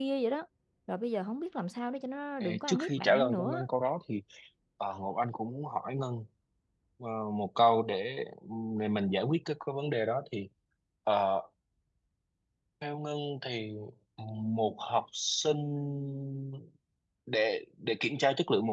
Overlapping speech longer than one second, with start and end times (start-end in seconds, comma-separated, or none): 2.4-3.7